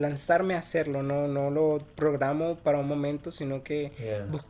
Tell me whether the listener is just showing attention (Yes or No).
Yes